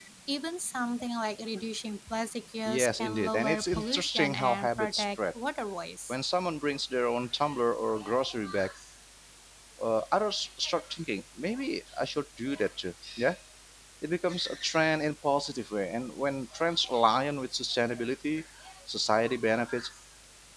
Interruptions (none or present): present